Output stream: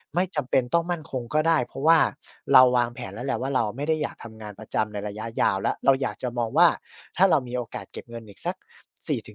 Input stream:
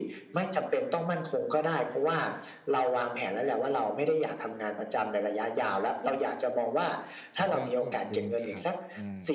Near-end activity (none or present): present